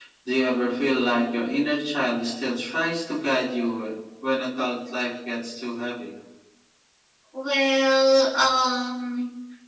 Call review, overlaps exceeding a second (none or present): none